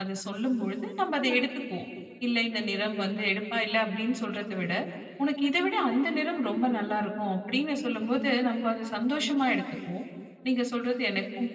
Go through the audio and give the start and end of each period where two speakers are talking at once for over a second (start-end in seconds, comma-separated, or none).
none